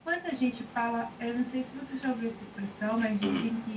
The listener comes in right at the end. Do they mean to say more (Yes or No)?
No